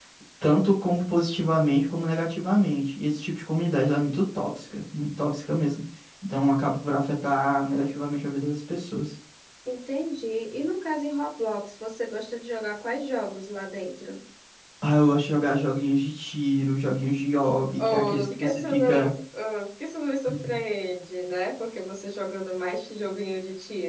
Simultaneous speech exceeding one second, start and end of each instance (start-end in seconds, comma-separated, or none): 17.8-19.1